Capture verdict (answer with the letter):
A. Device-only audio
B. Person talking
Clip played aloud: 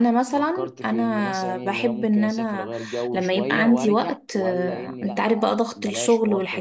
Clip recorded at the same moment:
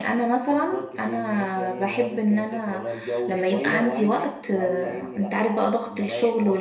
A